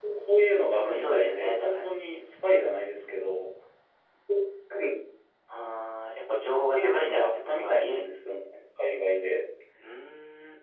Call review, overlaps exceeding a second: present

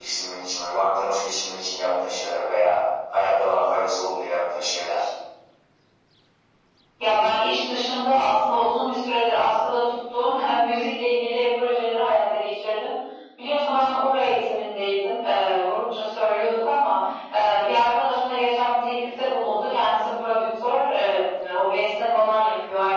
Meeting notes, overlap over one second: none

